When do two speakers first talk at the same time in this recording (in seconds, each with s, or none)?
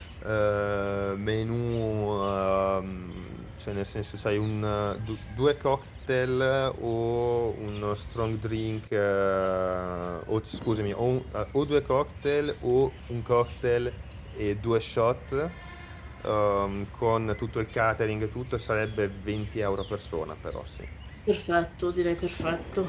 none